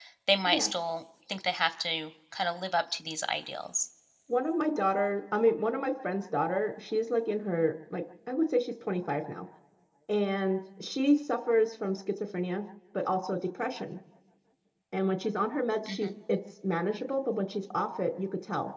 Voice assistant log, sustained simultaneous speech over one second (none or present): none